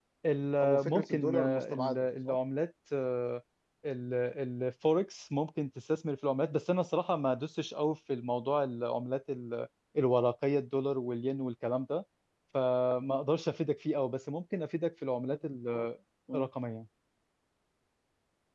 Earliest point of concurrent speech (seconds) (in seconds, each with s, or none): 0.6 s